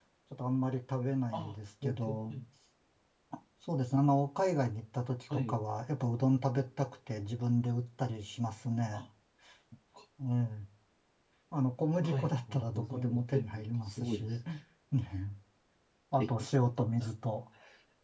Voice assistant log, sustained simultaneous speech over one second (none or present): present